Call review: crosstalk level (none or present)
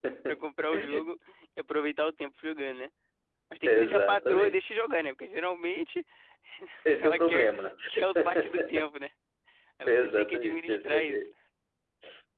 present